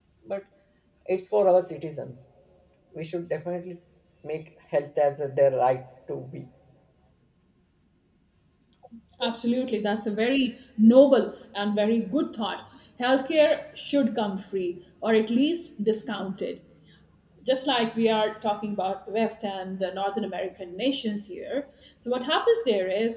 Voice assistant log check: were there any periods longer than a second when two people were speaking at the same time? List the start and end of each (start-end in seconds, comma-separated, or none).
none